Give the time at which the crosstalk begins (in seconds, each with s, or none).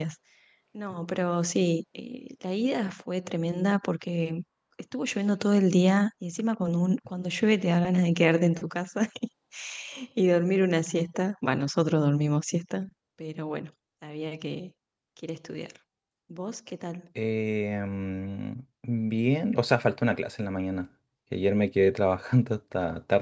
none